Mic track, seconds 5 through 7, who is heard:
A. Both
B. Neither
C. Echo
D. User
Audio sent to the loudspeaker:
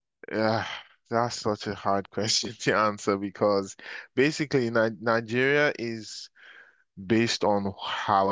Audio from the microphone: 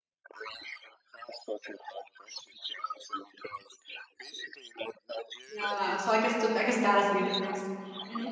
A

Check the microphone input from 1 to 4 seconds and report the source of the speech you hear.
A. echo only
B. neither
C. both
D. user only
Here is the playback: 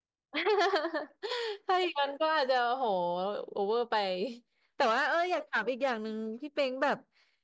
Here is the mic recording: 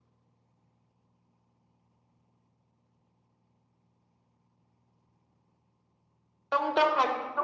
B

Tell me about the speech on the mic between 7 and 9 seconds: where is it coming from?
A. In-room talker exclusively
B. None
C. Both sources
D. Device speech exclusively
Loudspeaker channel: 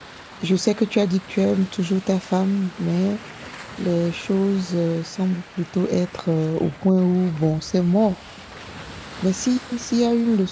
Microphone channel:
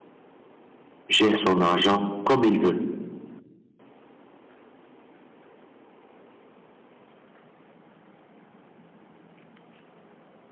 B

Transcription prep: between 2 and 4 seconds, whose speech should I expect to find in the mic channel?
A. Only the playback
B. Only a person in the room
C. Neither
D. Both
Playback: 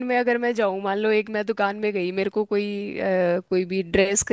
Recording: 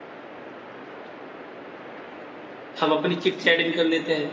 B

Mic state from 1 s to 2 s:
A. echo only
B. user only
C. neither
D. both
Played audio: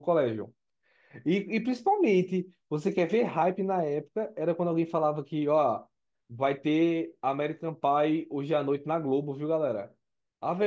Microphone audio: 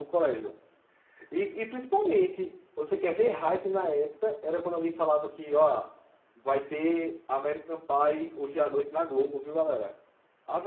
A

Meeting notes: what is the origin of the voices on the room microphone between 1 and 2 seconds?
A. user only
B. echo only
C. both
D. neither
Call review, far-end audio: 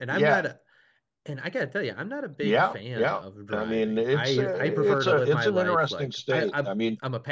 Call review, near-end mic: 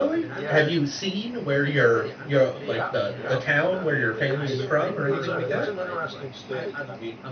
C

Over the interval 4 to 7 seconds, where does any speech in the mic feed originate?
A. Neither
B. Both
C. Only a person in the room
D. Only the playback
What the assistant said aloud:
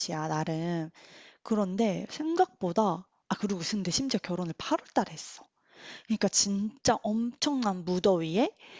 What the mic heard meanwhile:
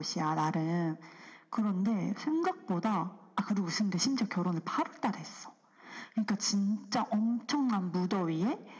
D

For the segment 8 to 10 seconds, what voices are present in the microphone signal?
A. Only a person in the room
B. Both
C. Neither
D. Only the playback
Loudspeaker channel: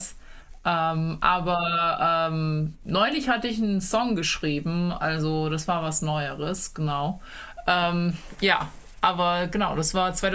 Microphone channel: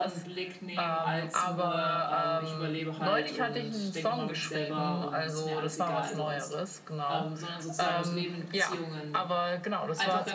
B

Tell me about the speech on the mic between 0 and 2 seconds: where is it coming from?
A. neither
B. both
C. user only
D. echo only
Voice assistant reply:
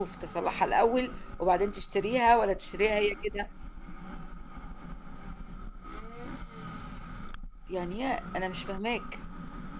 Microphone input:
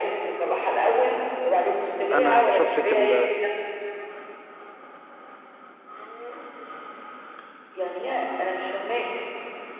D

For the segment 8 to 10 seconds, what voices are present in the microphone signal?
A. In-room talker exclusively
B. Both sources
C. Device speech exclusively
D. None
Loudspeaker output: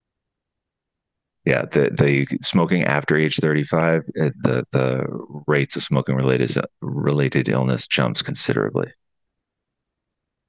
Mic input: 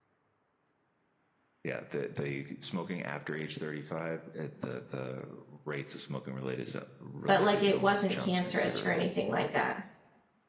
B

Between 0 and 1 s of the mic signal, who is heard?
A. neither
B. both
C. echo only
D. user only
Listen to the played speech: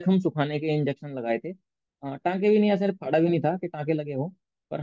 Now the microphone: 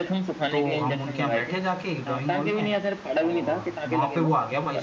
B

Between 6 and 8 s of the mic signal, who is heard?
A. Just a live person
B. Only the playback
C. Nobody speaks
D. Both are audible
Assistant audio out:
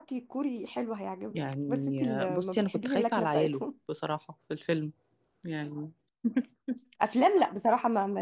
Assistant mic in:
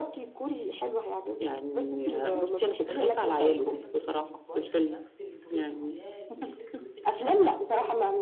D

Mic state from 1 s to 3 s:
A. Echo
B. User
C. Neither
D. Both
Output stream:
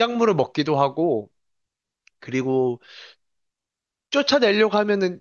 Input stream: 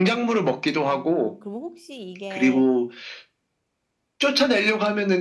D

